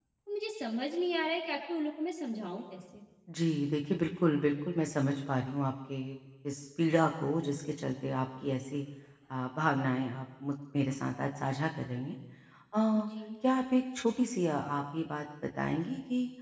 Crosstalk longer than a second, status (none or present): none